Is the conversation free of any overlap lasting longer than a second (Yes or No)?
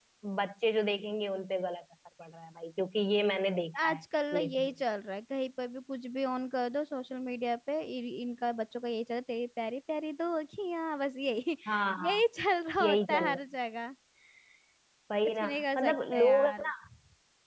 No